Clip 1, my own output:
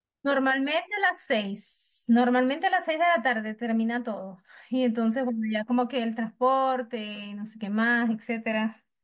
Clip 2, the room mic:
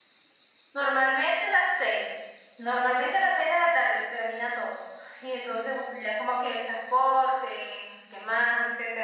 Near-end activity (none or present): none